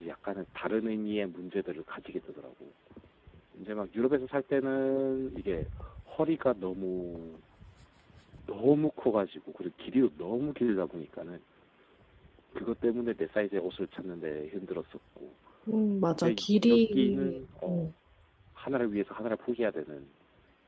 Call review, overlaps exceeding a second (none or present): present